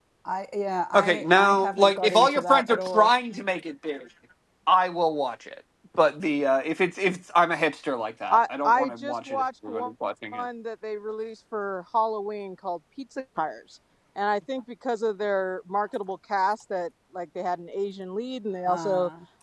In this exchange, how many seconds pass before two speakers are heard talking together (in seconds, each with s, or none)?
0.9 s